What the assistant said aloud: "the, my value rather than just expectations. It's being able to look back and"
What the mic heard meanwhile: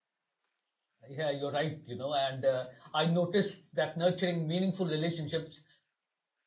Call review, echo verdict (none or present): none